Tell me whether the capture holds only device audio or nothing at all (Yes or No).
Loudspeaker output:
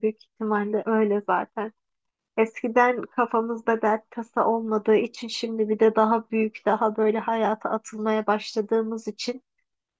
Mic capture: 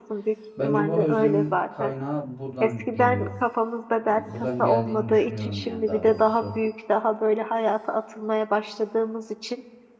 No